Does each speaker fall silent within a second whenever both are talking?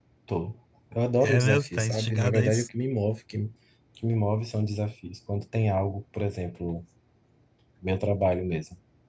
No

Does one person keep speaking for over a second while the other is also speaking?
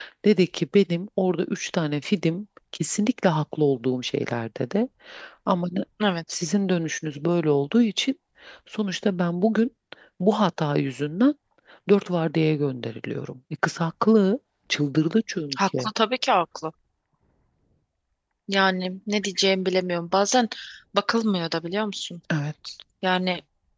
No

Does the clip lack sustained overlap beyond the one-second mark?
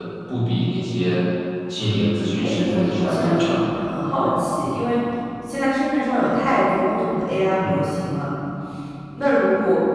No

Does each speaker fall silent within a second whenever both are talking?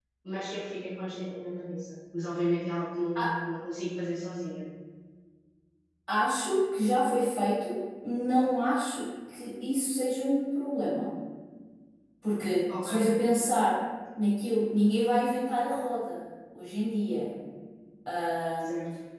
Yes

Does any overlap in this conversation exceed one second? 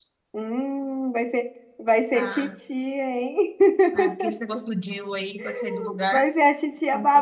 No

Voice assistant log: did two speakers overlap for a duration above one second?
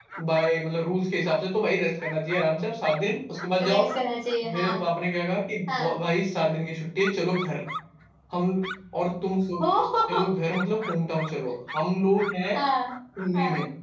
No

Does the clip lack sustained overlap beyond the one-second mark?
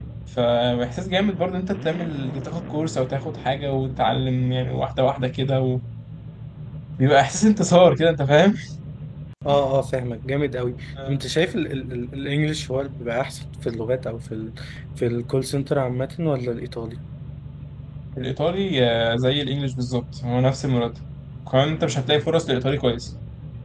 Yes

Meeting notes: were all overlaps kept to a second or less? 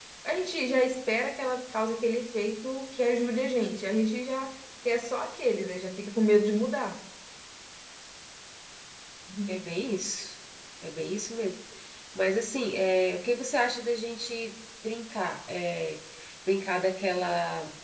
Yes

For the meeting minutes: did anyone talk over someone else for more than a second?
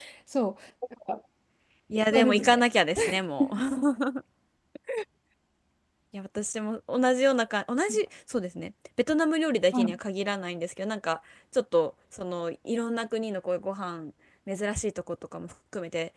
No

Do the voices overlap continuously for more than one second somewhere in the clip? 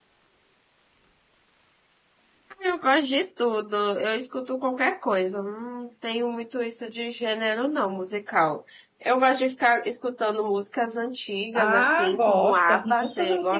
Yes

